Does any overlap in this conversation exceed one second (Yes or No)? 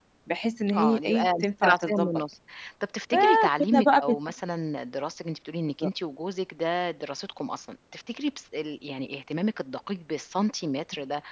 Yes